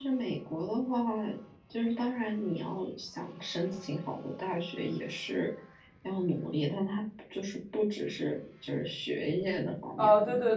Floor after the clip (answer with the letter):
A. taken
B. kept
A